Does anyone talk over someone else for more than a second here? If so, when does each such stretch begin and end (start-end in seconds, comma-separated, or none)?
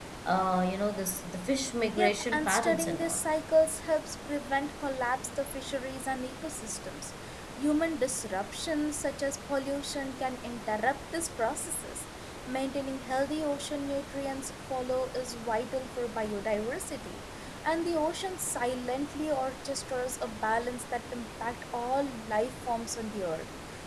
2.0-3.2